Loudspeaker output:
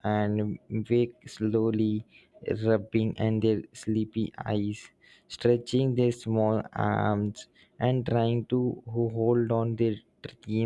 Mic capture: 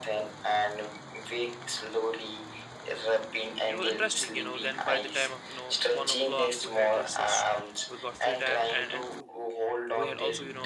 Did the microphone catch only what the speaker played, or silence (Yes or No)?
No